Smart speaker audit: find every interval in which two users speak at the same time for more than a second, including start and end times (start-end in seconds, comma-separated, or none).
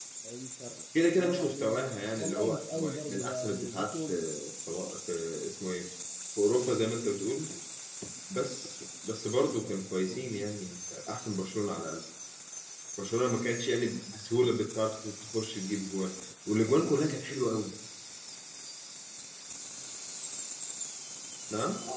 1.1-4.1